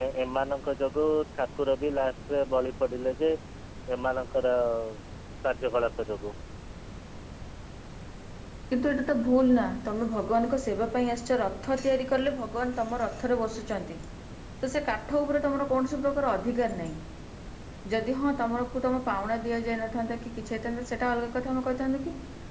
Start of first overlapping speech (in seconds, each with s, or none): none